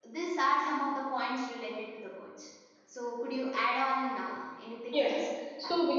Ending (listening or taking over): taking over